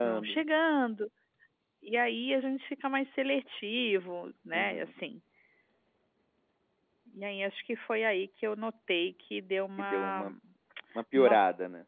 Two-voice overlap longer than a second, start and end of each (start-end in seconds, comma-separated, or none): none